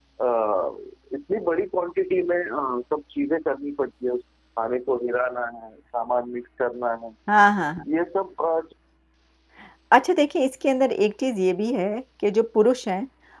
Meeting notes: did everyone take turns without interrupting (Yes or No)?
Yes